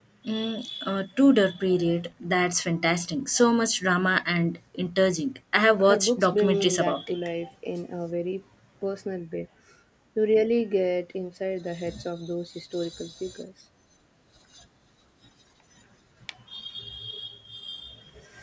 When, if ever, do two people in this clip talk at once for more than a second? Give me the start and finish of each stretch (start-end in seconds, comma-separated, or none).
5.9-7.1